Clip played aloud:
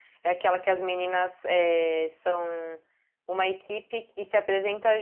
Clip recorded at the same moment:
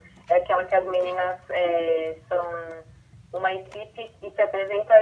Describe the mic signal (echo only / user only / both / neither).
echo only